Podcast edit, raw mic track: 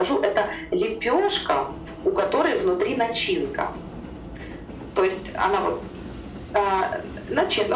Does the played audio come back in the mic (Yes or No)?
Yes